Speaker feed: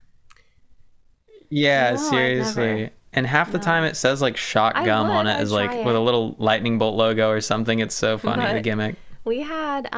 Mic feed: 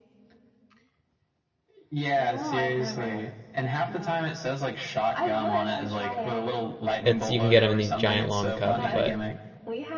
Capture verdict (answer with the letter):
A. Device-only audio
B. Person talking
B